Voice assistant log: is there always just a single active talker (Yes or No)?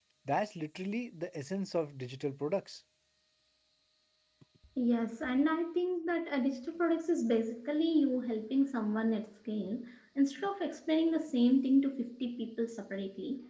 Yes